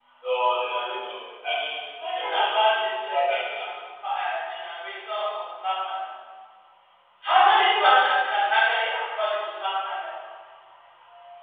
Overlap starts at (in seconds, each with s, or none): 2.0 s